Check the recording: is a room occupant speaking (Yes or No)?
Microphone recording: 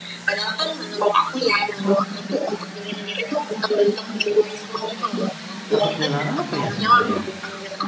Yes